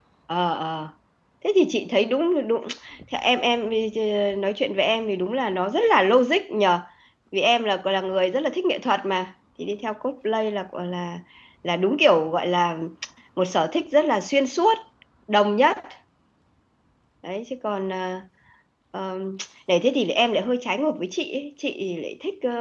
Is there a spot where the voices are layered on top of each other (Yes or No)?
No